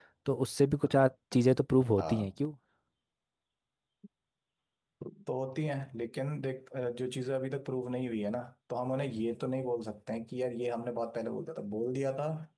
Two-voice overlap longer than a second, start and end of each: none

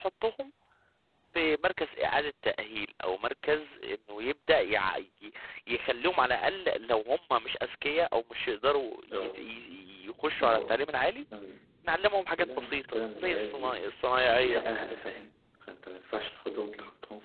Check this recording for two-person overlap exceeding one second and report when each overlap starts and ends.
12.6-13.8

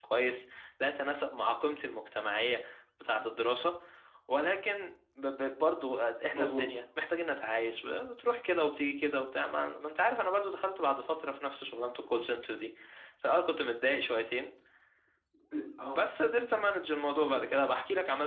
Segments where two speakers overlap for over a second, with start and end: none

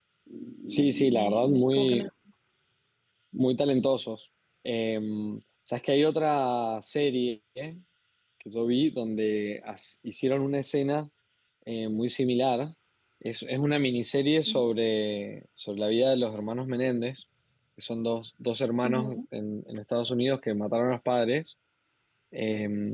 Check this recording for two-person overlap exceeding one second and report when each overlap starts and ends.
0.7-2.0

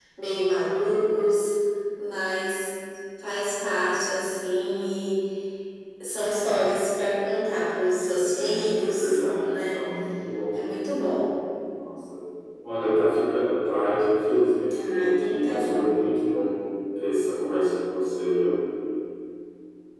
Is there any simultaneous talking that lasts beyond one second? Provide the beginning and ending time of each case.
8.2-9.9, 14.7-16.0

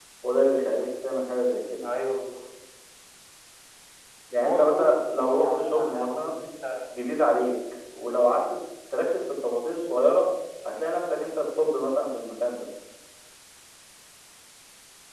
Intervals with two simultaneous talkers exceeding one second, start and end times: 4.4-6.4

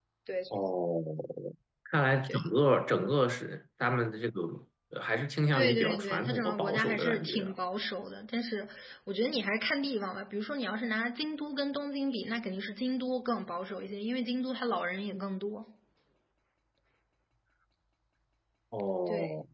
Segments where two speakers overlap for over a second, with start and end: 5.5-7.5

